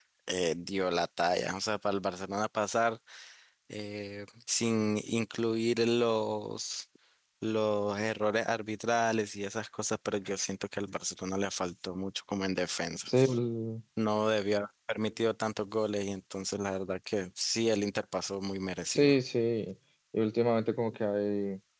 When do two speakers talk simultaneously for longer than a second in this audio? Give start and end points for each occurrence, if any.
none

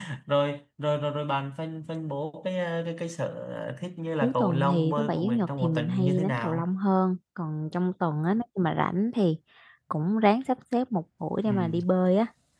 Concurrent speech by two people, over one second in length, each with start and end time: 4.2-6.7

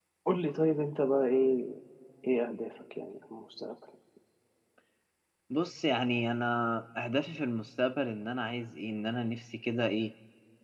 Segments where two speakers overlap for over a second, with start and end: none

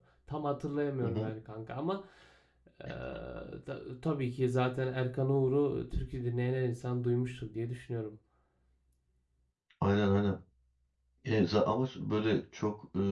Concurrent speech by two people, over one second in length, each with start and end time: none

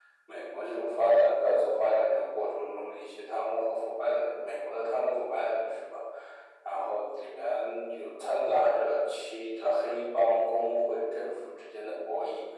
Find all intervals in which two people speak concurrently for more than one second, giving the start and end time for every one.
none

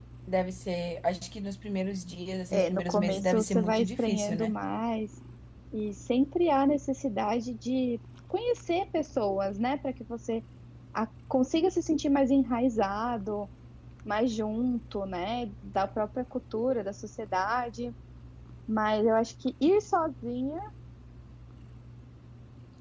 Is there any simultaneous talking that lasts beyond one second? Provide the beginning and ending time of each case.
2.5-4.5

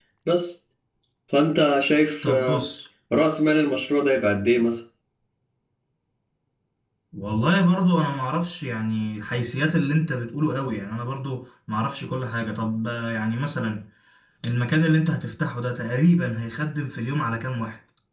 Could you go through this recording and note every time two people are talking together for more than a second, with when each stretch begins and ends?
none

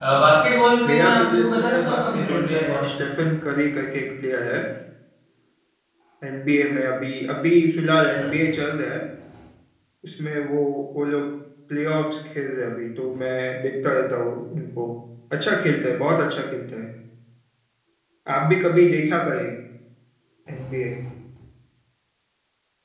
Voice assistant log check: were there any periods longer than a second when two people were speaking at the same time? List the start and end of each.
0.9-3.0

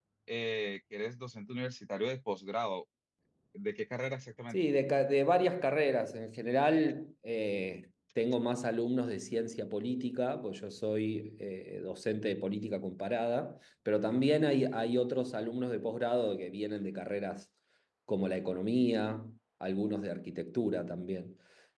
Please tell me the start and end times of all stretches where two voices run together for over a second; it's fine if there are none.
none

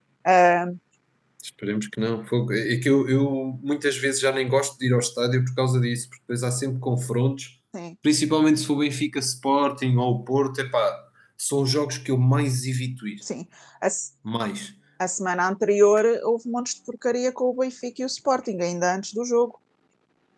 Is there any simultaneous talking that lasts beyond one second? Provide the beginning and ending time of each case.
none

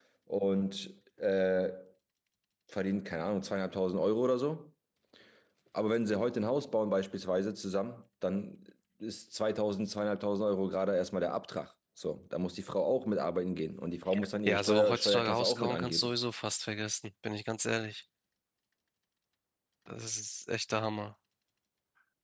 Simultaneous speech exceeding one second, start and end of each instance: 14.5-16.1

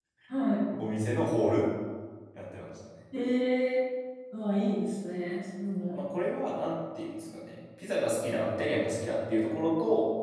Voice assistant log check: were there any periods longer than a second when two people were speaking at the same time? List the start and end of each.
none

